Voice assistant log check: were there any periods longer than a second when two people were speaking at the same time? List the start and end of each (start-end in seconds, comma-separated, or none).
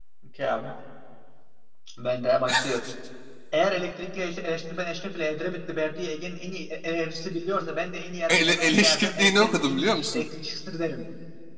8.3-10.2